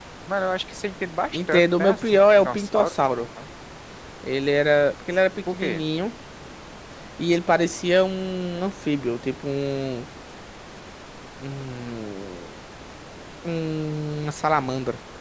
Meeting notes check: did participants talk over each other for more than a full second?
Yes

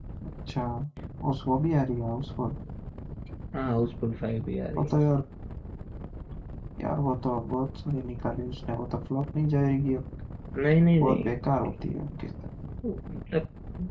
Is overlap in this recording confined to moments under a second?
Yes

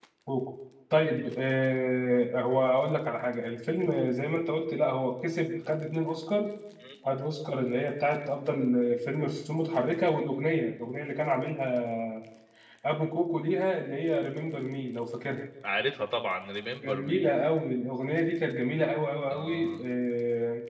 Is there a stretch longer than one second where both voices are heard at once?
No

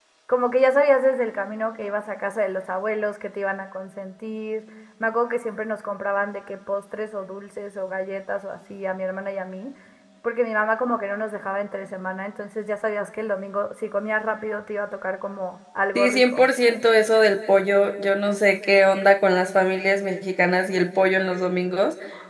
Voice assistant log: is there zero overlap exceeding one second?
Yes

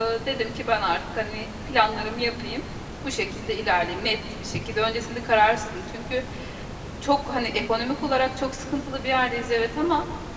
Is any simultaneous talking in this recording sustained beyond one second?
No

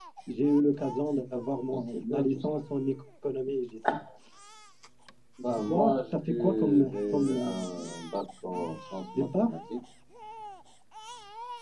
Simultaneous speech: Yes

